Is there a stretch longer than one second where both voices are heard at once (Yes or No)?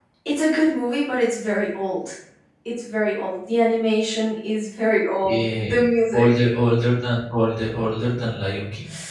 No